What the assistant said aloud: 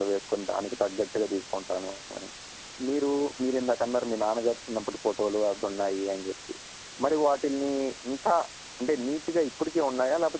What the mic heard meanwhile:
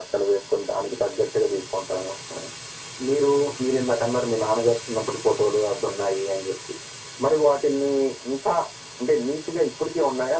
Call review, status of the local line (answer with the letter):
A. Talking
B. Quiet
B